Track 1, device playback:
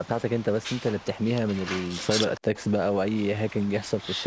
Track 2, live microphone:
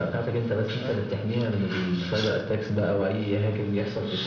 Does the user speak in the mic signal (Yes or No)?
Yes